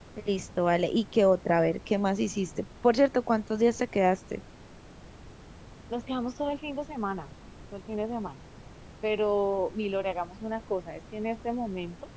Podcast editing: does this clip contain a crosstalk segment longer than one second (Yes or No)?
No